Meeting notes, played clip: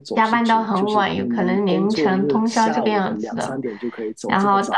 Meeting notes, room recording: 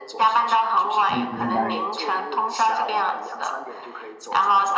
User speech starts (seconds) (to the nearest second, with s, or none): 1 s